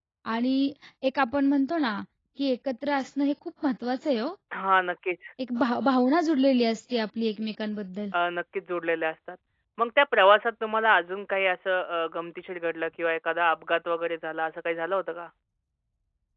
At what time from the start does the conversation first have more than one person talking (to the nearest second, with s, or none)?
none